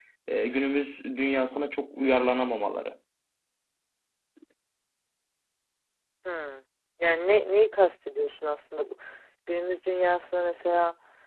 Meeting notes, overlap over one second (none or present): none